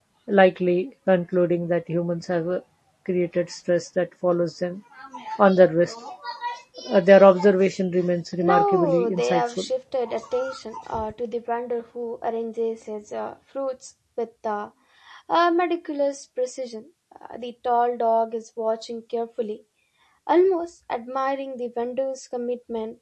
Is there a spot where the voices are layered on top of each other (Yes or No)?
Yes